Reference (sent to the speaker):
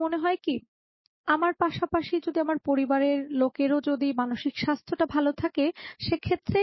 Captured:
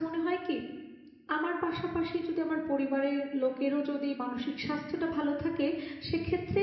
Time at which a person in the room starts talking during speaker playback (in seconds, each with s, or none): none